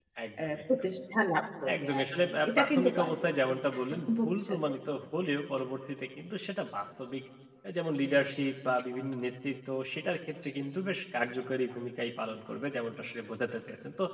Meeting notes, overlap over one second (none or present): present